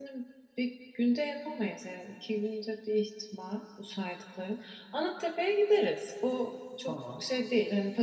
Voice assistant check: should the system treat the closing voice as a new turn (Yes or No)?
No